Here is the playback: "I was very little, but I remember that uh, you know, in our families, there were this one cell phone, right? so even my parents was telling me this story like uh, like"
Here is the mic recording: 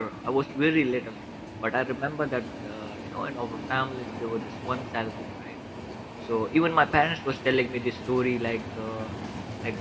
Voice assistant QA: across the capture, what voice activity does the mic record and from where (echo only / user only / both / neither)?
echo only